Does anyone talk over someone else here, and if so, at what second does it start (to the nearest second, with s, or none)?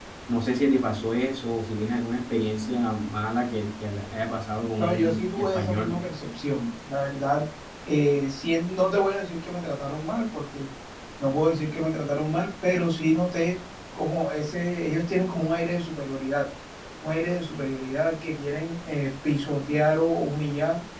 5 s